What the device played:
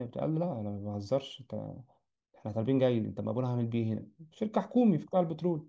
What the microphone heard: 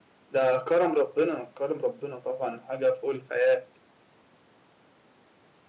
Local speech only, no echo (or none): ده كرم ربنا كرم ربنا طبعا حاجه فوق الخيال